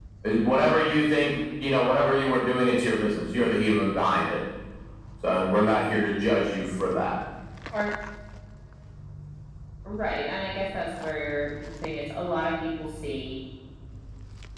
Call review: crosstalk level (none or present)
none